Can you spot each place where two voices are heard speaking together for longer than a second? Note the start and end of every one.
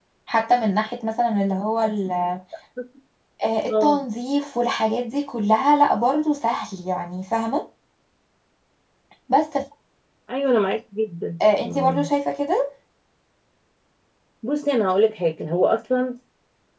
none

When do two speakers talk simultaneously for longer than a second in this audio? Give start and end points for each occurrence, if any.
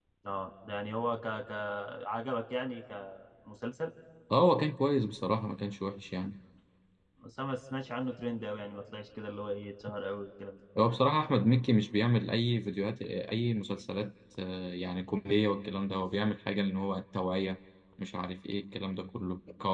none

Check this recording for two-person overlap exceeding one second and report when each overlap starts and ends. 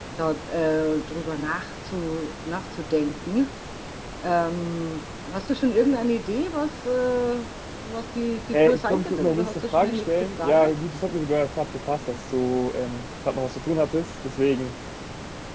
8.5-10.7

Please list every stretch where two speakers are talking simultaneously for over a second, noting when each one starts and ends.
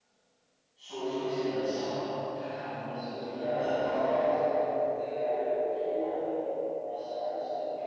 2.7-4.4

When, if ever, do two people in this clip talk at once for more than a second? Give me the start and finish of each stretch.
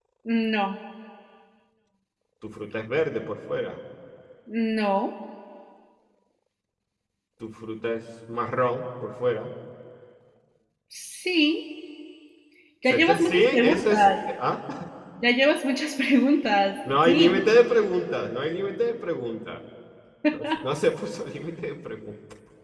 12.9-14.1

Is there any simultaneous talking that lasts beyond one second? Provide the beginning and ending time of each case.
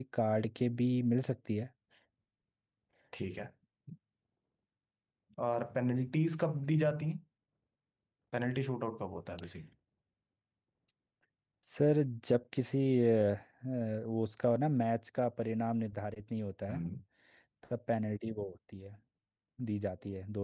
none

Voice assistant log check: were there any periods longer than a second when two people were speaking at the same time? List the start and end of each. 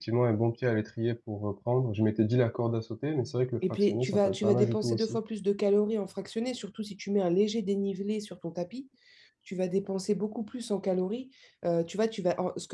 3.7-5.2

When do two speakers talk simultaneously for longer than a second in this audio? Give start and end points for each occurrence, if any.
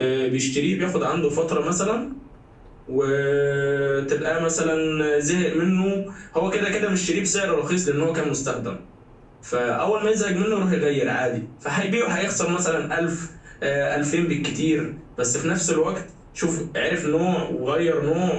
none

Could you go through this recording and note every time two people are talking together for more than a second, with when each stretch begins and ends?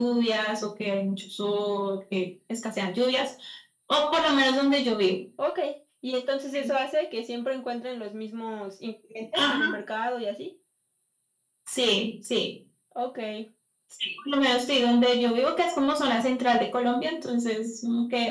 none

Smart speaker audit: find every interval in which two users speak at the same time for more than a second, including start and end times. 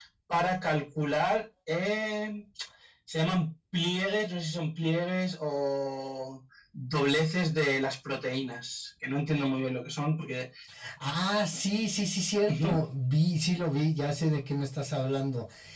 none

